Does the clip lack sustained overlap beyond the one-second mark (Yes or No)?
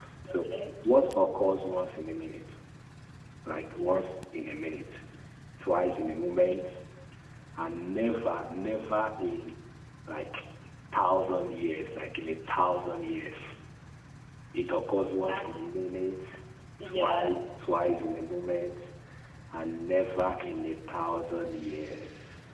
Yes